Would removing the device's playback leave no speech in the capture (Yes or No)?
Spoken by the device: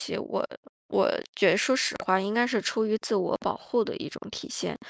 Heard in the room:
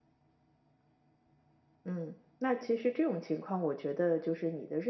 No